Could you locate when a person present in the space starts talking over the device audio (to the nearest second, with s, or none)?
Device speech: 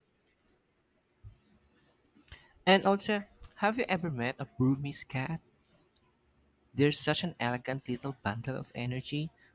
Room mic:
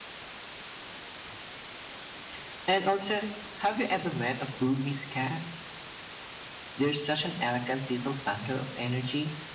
none